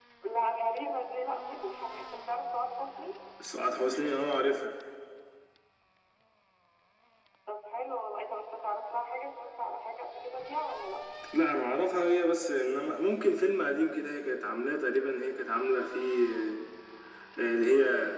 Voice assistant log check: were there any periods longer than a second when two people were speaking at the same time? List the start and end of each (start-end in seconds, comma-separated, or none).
none